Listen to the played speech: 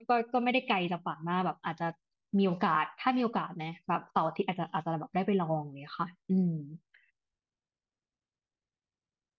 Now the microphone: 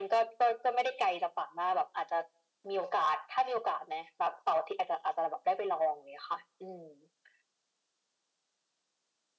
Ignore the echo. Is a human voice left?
No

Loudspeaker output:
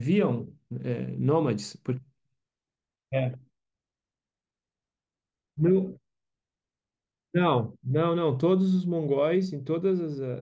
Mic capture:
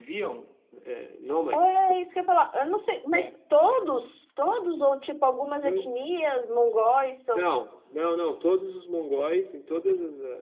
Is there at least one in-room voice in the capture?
Yes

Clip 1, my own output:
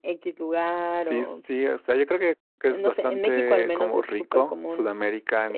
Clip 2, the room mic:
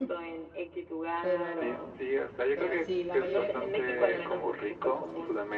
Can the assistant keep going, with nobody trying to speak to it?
No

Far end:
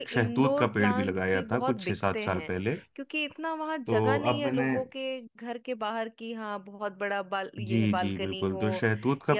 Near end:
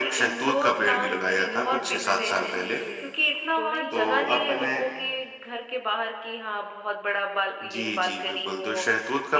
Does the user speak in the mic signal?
Yes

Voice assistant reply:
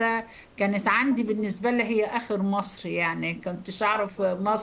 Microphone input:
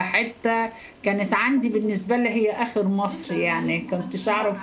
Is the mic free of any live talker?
No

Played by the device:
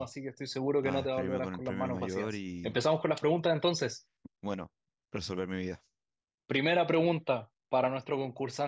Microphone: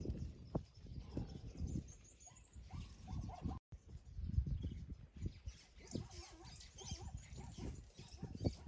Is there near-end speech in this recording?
No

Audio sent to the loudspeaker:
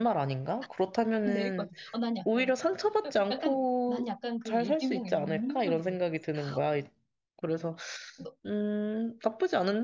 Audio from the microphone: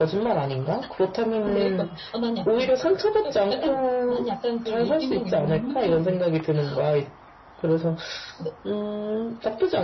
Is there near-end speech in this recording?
No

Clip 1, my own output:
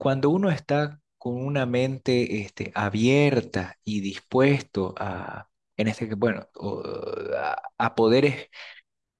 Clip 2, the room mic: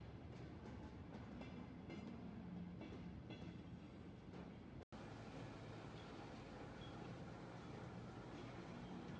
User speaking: No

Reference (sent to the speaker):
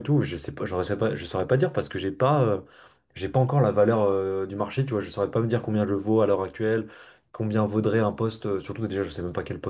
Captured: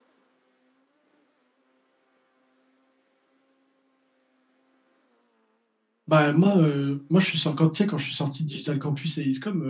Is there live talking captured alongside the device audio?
Yes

